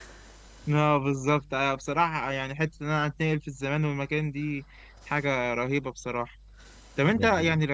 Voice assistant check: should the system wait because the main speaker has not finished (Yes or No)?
Yes